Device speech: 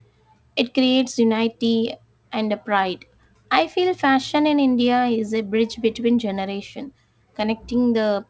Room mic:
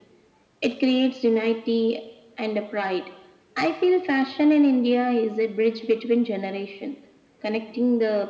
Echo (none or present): present